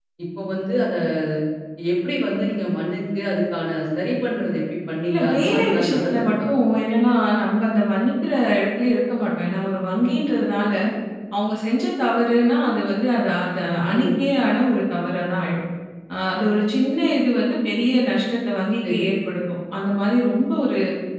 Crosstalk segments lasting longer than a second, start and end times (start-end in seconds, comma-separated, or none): 5.1-6.5